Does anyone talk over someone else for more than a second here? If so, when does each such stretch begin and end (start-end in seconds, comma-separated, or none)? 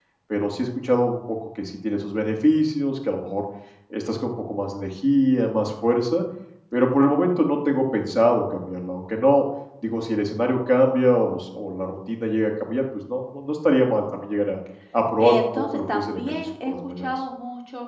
15.2-17.1